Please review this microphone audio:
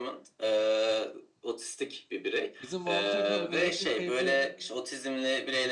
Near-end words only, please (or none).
Bizim Walter da bu negatif kaybı